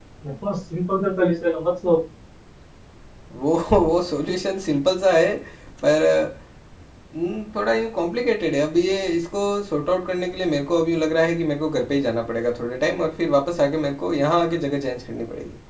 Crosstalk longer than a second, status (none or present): none